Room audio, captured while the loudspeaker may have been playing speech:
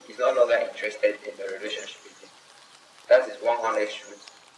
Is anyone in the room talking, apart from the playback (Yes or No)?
No